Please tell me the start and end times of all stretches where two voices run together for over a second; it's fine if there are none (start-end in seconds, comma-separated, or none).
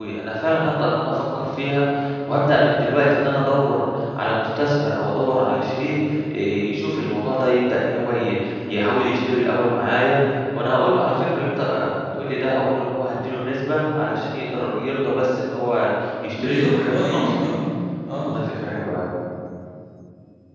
16.4-17.6